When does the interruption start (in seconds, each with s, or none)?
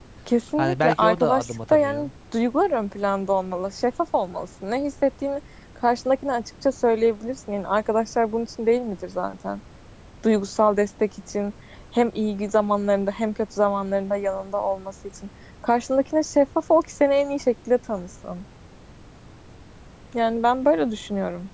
0.6 s